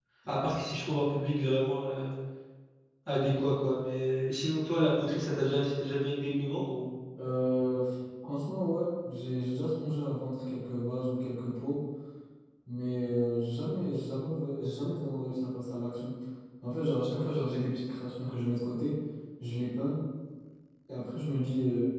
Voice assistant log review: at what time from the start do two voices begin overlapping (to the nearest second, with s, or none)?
none